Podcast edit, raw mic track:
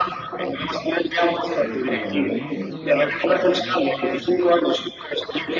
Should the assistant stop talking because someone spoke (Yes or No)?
Yes